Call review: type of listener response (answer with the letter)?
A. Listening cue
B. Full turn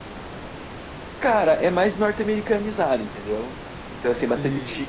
A